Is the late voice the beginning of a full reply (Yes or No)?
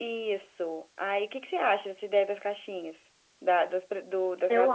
No